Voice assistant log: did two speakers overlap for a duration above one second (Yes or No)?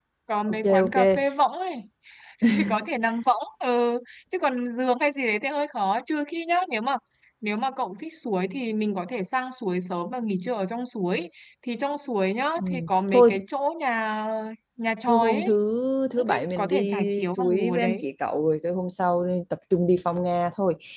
Yes